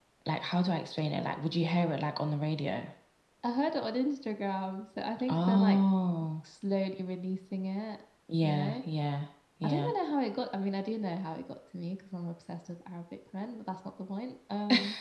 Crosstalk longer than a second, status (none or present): none